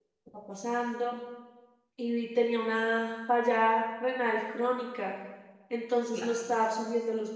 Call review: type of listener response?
listening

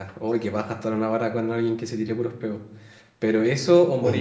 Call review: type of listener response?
listening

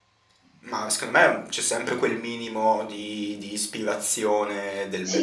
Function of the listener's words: taking over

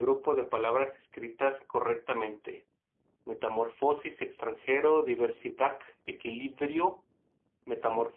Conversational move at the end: listening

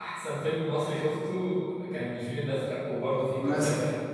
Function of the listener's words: taking over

